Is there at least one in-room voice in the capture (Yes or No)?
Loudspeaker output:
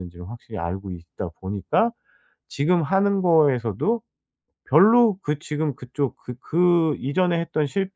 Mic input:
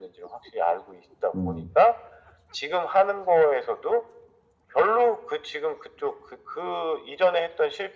Yes